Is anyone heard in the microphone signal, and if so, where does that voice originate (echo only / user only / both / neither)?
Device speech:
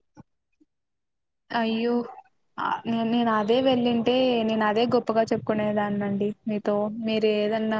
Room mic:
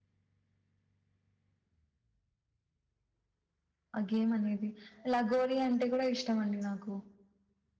user only